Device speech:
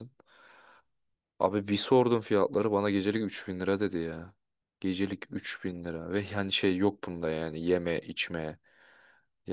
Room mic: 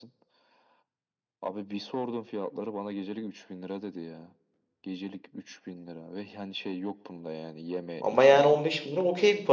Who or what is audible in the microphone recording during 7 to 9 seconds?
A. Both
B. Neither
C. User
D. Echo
A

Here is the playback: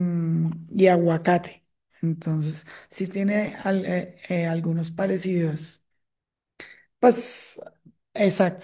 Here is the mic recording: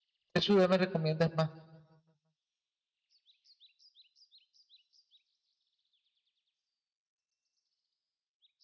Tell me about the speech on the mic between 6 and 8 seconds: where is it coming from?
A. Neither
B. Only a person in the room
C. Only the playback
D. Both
A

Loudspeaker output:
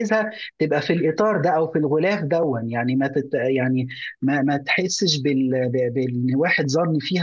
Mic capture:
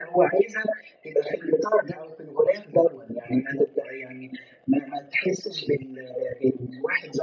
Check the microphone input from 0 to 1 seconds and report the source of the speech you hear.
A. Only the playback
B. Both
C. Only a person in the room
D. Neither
A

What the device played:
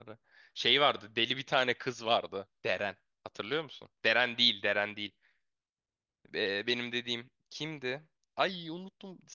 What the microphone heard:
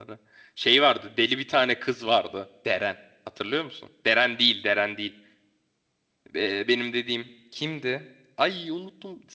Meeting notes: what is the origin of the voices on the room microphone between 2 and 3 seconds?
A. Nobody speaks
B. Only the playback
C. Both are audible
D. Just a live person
B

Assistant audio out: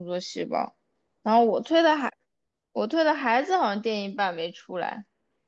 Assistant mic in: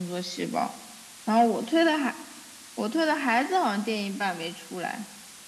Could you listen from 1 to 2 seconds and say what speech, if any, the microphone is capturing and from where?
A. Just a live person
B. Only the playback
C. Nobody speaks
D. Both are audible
B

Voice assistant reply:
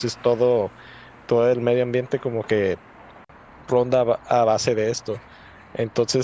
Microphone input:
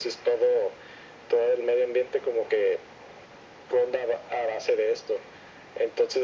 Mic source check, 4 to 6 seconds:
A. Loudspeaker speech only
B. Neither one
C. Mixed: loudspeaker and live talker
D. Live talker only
A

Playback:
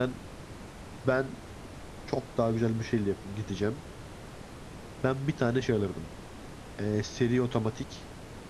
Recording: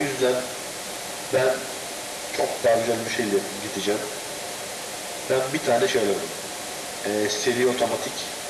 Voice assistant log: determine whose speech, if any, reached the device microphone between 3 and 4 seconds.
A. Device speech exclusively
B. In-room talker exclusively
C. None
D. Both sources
A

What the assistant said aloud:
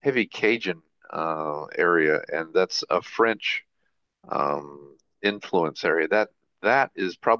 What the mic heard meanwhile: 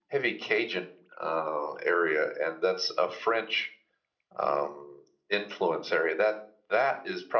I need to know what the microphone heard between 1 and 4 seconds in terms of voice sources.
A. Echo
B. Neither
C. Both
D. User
A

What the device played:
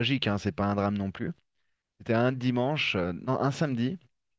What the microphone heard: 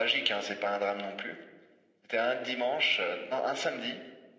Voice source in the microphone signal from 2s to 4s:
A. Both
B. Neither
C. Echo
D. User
C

